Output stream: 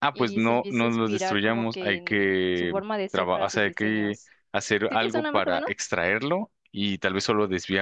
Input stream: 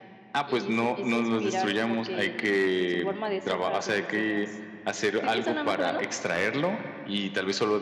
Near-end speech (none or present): none